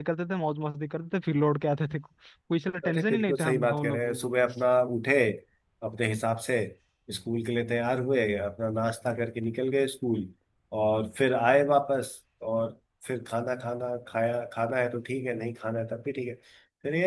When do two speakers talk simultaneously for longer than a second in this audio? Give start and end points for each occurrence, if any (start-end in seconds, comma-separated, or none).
2.9-4.3